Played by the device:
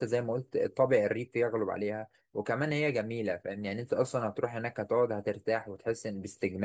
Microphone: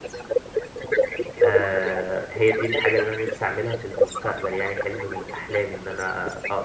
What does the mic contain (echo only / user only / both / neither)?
both